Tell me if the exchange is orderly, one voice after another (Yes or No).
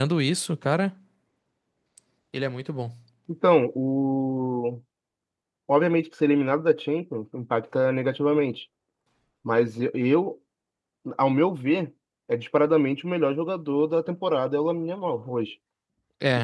Yes